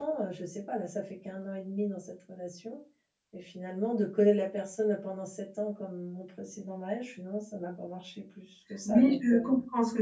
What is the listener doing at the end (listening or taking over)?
taking over